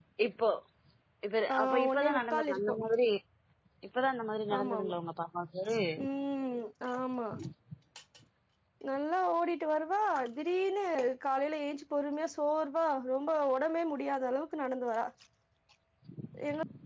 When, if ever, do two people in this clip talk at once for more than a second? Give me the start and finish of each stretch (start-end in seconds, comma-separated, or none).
1.5-2.7